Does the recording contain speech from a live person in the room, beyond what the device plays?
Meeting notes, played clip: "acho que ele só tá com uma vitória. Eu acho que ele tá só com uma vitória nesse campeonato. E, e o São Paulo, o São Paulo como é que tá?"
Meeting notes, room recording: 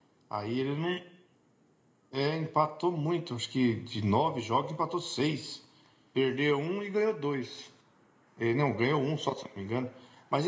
Yes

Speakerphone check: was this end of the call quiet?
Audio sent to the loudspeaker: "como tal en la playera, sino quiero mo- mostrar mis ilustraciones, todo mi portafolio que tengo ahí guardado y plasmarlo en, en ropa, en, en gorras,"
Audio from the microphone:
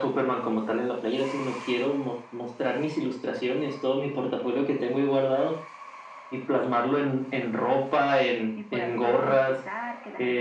No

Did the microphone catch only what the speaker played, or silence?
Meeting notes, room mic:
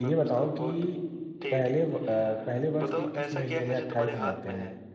No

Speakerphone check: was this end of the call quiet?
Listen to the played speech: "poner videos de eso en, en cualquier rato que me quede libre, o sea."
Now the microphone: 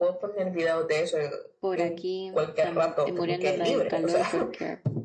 No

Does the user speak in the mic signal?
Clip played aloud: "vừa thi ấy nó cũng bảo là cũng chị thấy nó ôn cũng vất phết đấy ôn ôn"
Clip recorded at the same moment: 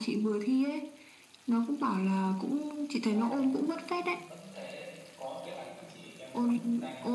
Yes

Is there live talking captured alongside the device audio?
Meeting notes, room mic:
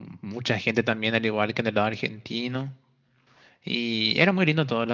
Yes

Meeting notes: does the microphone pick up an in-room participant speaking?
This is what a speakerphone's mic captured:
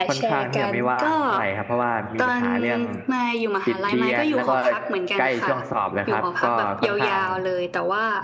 Yes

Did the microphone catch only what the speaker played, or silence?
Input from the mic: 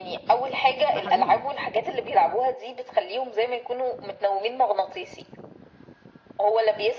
No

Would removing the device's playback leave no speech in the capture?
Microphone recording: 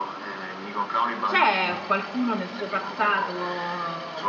No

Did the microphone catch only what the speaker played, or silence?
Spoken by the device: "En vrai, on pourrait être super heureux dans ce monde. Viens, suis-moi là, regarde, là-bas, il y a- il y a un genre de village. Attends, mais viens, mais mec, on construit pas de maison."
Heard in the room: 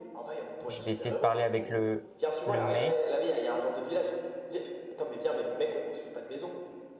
No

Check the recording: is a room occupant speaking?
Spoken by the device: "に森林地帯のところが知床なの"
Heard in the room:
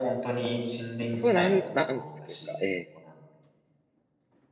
Yes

